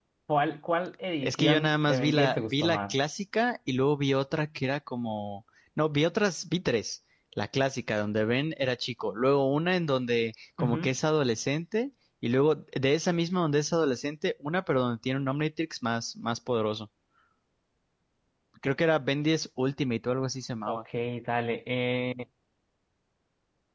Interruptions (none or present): present